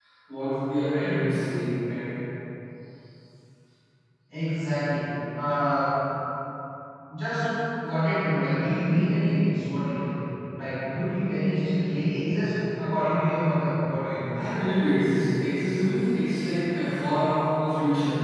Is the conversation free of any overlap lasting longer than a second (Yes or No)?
Yes